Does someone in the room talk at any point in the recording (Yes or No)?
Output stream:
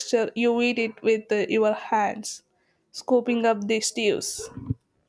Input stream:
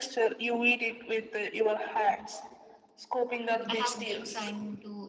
Yes